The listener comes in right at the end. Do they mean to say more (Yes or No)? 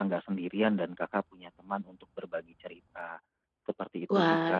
Yes